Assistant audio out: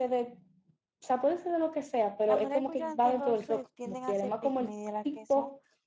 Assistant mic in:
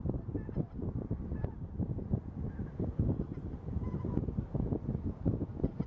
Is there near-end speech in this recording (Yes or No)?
No